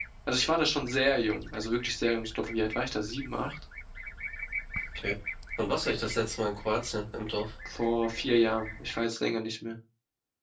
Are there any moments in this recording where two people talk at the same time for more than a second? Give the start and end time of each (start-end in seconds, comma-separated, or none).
none